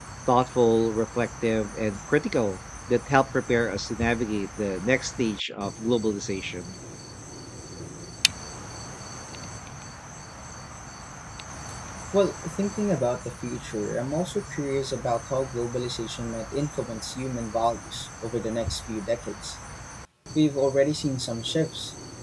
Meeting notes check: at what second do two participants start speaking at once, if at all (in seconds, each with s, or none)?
none